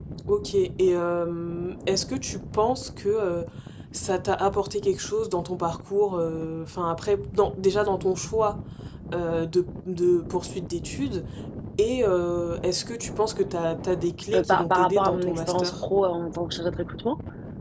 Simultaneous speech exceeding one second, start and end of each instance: 14.3-15.7

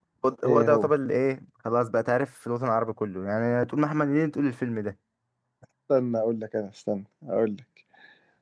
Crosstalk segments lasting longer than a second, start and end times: none

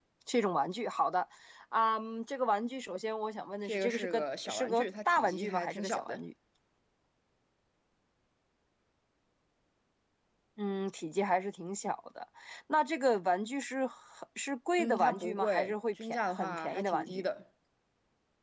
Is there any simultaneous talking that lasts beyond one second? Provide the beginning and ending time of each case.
3.6-6.2, 14.8-17.2

